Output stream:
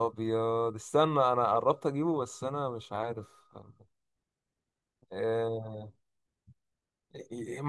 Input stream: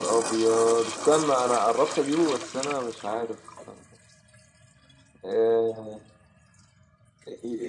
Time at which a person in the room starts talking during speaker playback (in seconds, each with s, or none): none